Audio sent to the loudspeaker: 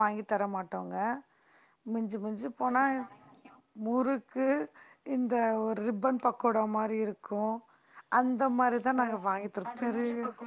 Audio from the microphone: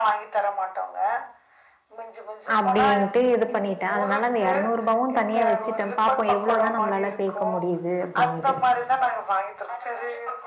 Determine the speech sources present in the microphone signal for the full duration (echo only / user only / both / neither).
both